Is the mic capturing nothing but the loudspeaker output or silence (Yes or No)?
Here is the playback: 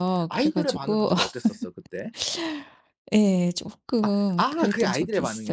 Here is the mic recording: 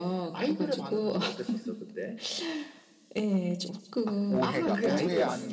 No